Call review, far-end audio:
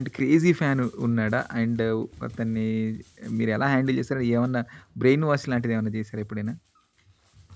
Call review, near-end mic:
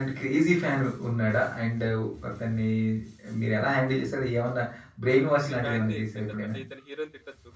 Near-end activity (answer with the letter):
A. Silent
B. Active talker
B